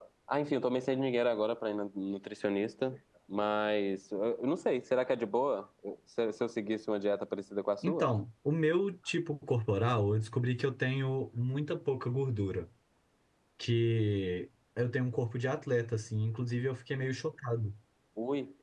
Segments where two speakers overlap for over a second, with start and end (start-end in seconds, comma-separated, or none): none